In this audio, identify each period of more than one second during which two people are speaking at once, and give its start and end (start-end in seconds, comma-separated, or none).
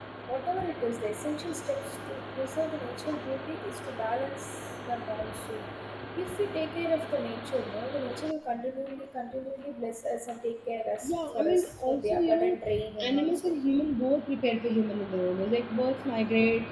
11.0-12.6